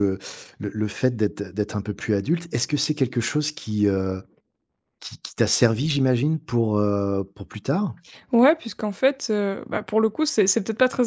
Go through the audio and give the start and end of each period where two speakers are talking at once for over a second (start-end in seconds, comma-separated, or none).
none